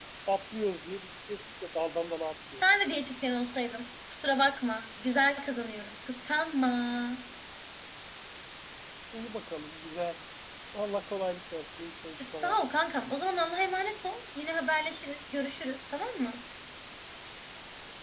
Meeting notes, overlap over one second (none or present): none